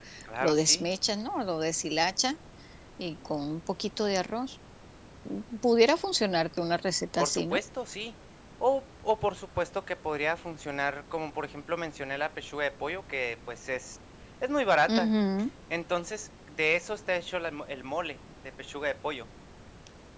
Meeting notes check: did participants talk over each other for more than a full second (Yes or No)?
No